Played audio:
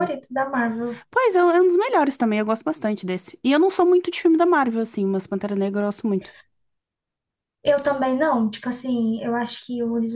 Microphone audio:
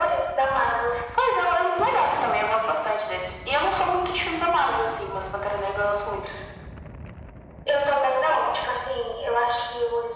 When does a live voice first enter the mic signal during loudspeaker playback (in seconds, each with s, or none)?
none